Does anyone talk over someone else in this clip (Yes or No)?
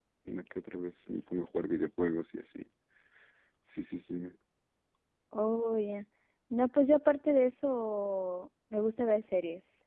No